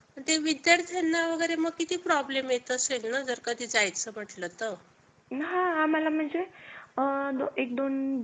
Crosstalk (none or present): none